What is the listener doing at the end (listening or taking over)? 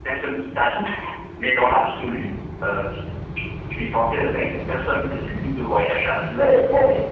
taking over